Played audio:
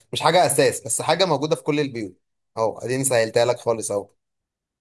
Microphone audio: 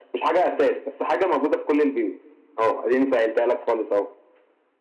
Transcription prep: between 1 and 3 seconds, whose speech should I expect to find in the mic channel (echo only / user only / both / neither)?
echo only